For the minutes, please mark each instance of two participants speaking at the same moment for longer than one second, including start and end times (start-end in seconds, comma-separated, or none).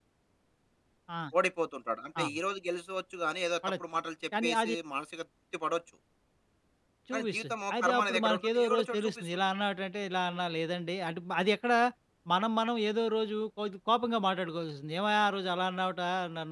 7.1-9.4